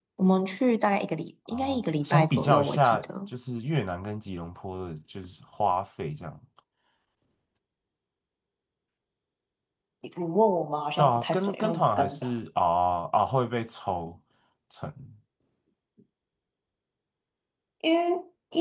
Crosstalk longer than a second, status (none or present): present